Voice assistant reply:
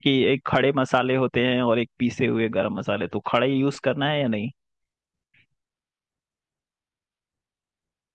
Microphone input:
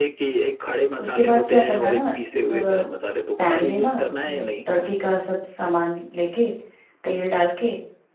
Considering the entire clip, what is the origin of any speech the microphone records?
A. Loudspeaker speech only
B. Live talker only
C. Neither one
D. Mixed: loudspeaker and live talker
D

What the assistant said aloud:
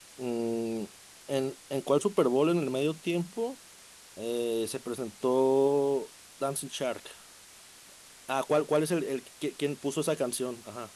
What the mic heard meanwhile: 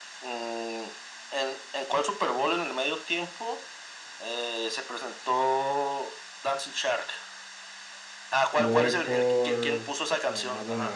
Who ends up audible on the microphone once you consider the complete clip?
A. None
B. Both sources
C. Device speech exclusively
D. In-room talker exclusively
B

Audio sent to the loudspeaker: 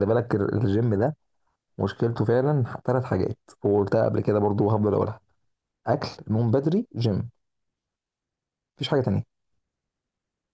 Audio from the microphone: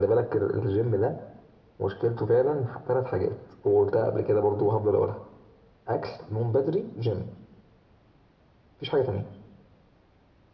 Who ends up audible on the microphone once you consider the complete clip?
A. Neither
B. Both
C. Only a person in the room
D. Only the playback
D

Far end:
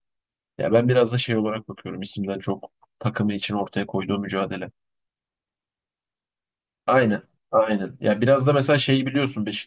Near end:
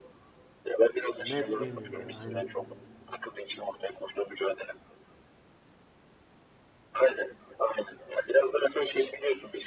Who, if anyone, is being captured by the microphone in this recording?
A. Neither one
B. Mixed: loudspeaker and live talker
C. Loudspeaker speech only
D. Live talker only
B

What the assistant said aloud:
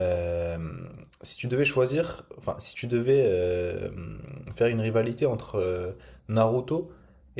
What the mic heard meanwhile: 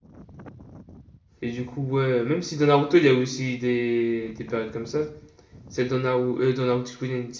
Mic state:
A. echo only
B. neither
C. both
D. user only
D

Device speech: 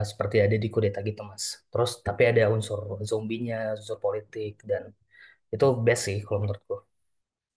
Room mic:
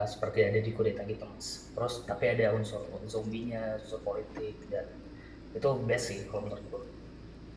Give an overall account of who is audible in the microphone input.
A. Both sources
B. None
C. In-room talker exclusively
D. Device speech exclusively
D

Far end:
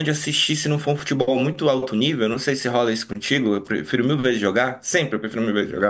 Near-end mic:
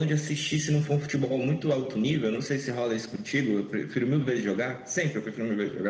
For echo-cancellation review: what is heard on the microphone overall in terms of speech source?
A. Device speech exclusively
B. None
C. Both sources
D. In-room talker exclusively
A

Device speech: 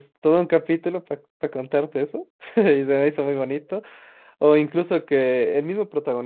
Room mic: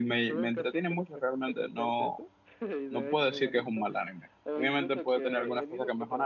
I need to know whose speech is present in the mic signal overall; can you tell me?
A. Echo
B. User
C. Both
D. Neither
C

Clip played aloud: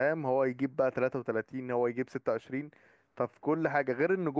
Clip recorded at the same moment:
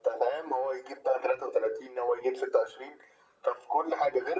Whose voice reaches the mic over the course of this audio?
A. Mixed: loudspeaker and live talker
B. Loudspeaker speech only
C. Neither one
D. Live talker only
B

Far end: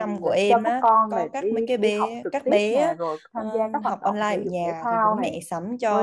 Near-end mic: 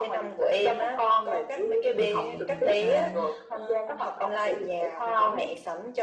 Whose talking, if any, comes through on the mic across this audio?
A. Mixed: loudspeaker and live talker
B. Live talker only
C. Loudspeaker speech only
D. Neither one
A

